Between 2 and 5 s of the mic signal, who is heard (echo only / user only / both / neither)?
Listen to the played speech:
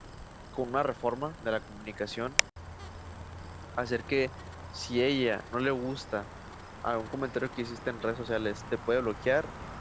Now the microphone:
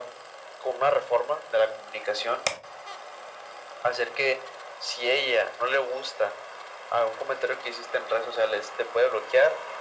echo only